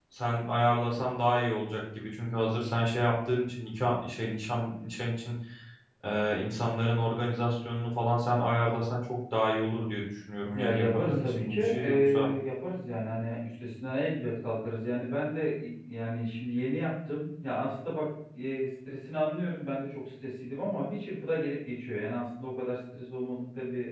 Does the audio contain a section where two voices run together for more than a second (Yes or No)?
Yes